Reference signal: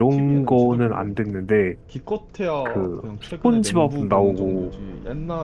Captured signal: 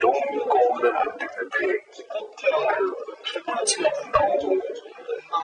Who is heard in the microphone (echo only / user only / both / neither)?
echo only